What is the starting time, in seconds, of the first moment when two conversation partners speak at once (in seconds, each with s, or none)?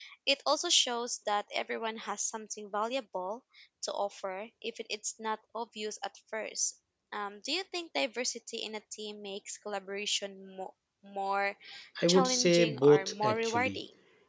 12.1 s